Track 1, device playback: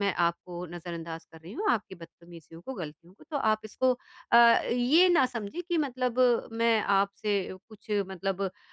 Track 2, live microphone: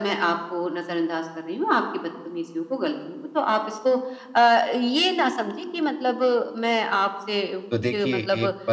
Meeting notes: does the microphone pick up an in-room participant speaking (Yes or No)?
Yes